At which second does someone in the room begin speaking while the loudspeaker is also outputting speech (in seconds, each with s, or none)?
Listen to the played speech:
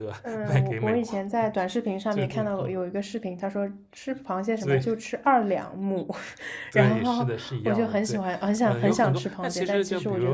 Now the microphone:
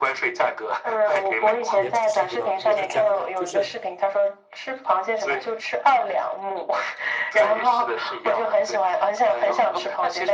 1.7 s